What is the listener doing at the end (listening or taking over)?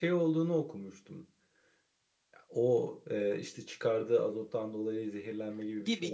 taking over